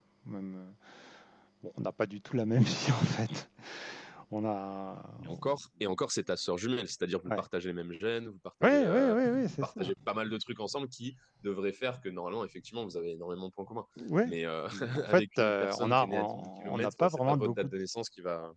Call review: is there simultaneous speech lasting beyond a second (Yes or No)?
Yes